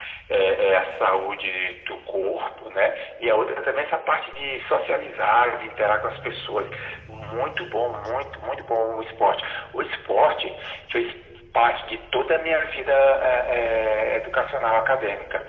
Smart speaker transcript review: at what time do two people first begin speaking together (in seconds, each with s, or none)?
none